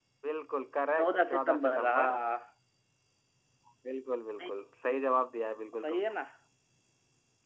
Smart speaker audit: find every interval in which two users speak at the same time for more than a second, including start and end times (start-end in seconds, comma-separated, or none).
1.0-2.2